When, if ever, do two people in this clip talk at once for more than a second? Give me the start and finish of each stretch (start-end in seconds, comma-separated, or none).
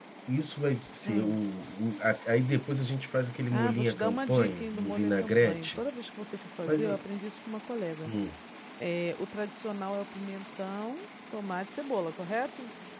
3.5-5.8